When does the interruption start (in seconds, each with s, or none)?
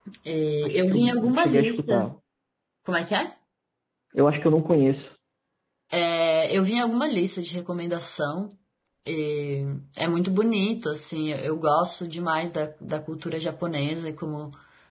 0.6 s